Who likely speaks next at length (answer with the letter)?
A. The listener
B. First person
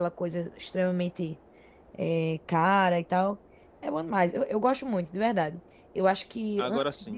B